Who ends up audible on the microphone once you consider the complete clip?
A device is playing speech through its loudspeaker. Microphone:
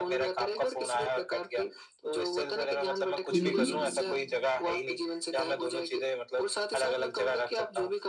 both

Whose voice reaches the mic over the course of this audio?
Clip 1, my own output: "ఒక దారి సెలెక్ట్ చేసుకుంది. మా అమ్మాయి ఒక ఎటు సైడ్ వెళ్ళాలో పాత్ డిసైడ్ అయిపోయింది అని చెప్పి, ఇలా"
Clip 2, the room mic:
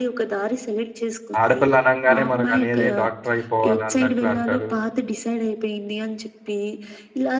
both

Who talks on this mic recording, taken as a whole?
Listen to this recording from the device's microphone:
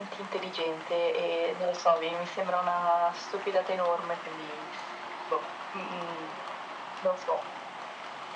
echo only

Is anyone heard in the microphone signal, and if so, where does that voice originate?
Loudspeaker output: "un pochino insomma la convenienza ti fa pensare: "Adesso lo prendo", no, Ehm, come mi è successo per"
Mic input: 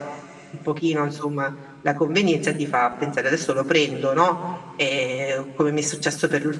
echo only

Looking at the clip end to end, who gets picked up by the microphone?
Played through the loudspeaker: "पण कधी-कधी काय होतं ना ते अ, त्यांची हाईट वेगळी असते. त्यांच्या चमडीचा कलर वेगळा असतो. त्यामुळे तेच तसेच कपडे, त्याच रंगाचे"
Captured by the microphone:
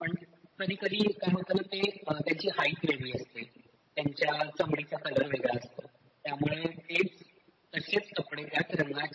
echo only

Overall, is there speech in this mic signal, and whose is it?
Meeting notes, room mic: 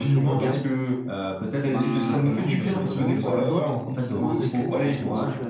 both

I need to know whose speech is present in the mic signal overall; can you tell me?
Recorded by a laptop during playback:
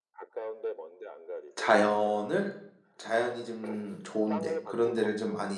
both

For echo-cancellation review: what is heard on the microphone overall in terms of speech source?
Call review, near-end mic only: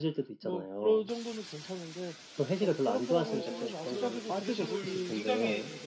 both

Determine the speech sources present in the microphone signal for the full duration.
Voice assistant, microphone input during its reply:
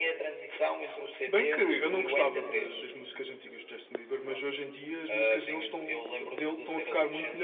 echo only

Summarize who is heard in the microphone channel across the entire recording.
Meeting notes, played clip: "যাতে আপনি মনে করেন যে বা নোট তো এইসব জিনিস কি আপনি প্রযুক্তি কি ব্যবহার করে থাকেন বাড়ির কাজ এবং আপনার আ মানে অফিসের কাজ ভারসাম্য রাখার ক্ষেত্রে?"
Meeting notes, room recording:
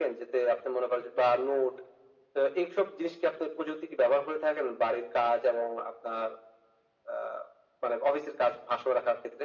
echo only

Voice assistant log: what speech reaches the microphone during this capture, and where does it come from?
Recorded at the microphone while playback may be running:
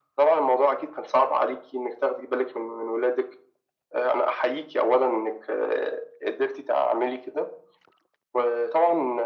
echo only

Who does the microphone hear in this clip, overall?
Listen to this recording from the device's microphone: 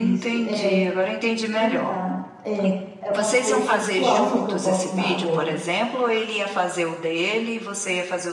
both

